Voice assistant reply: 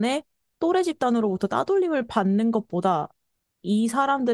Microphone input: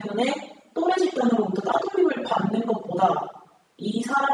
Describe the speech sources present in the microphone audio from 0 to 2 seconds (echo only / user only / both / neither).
echo only